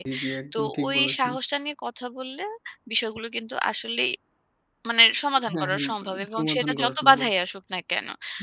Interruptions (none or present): present